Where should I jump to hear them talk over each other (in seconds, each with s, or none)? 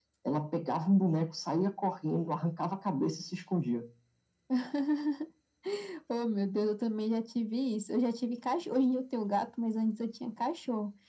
none